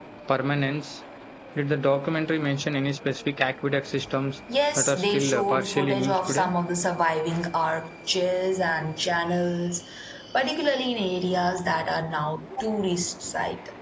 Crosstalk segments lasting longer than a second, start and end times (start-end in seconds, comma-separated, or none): 4.8-6.5